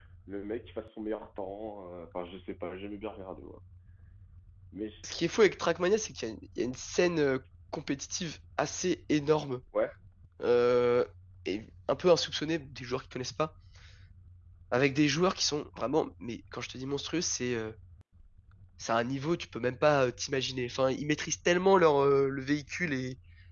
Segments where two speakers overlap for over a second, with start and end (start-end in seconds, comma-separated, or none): none